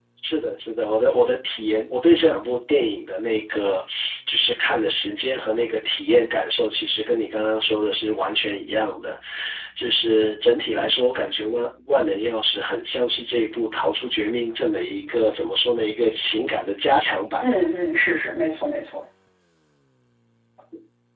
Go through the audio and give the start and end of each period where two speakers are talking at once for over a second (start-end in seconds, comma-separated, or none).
none